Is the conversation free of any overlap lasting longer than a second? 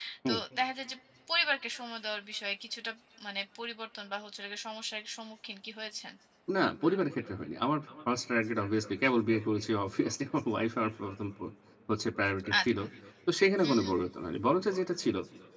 Yes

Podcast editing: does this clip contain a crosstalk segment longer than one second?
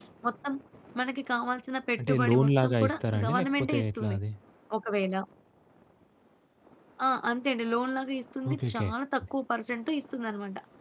Yes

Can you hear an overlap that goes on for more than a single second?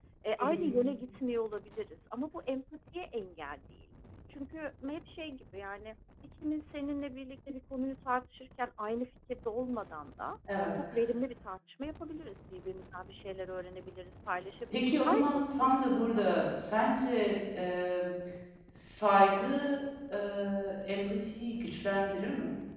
Yes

